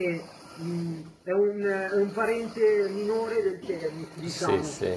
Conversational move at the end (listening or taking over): taking over